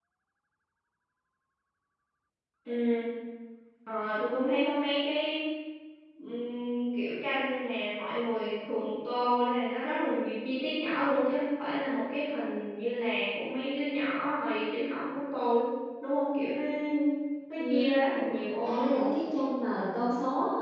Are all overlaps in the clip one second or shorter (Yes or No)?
No